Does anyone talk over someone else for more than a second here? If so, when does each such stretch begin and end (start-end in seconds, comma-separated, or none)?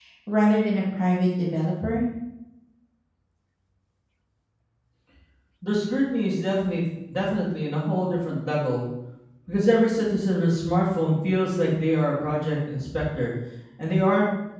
none